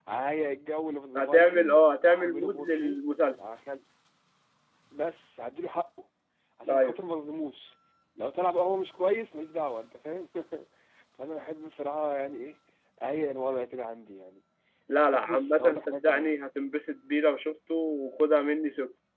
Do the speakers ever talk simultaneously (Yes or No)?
Yes